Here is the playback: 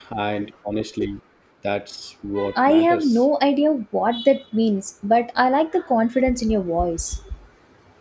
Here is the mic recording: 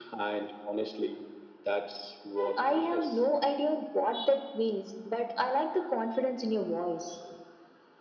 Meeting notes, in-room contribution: none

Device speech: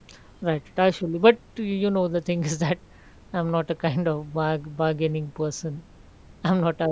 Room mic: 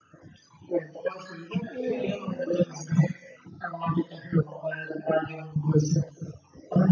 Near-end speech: present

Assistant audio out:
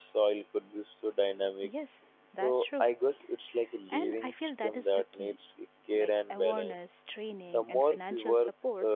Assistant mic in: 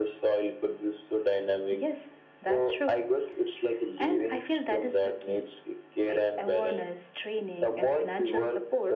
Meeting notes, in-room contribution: none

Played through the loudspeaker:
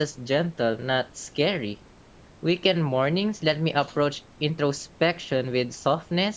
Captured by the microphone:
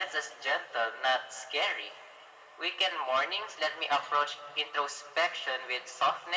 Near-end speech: none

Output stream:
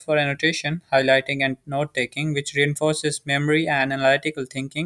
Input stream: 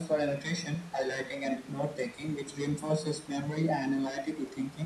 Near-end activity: none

